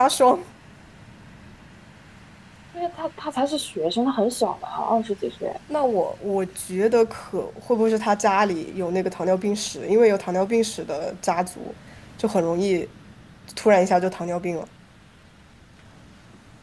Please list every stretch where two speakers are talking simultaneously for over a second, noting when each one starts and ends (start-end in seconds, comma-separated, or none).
none